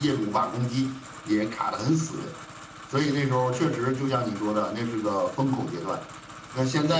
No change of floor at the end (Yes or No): Yes